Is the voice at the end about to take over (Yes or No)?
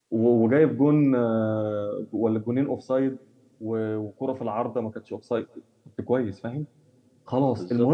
No